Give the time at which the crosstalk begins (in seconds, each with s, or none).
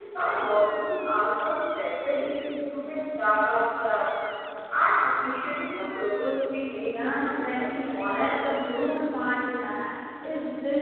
6.9 s